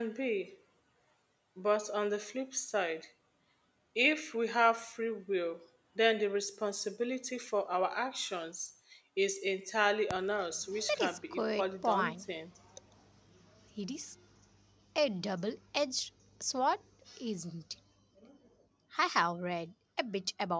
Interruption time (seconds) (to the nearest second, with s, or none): 11 s